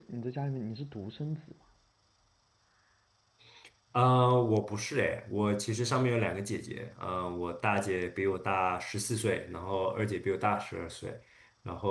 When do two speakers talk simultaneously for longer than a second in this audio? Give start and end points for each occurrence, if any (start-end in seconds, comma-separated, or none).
none